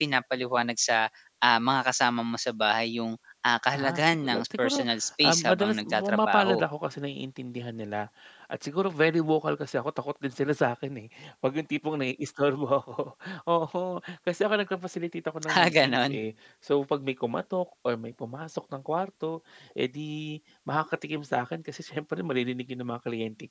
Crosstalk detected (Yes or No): Yes